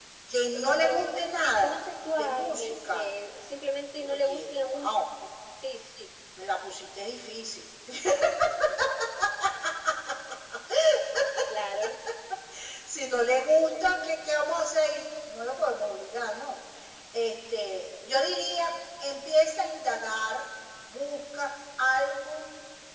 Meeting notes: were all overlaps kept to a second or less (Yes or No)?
No